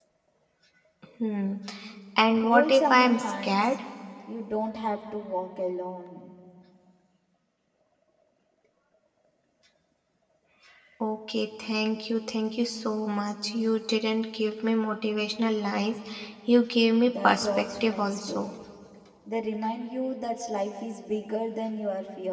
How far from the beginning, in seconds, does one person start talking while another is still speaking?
2.3 s

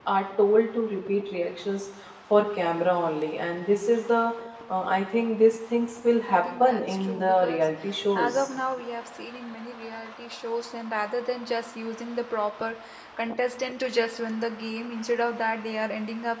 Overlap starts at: 6.3 s

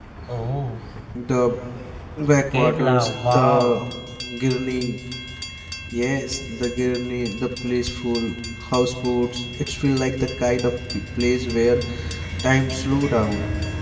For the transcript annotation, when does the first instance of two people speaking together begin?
2.5 s

